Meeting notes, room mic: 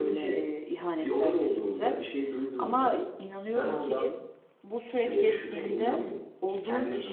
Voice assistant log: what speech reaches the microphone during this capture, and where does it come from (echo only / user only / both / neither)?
both